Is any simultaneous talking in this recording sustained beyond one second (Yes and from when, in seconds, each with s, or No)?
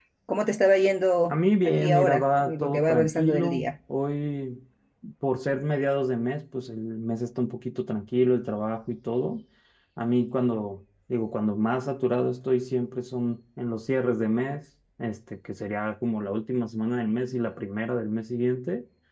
Yes, from 1.3 s